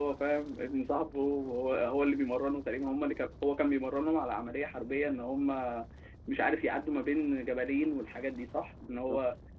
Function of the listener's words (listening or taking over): taking over